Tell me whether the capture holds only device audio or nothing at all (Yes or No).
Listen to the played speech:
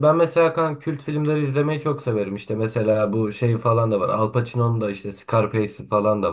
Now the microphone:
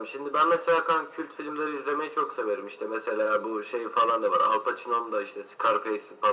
Yes